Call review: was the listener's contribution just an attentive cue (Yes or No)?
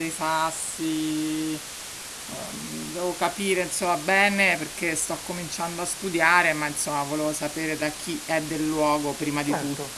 No